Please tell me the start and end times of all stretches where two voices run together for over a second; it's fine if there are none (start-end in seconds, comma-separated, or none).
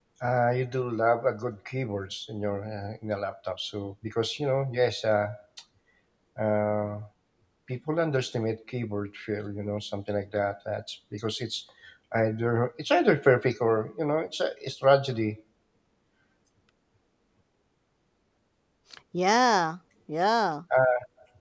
none